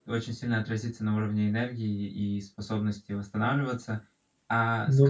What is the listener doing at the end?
listening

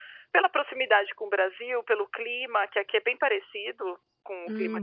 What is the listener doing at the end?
listening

